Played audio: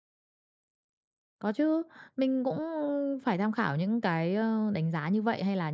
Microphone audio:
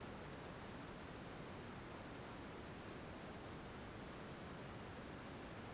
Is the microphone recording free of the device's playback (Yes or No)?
Yes